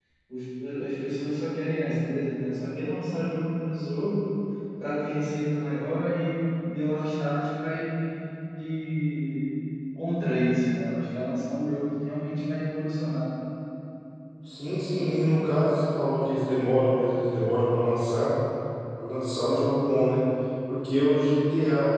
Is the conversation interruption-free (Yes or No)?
Yes